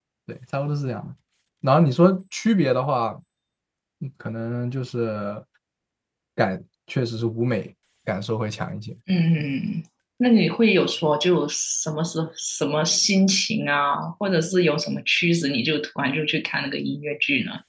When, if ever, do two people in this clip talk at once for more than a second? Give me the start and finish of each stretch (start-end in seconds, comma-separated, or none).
none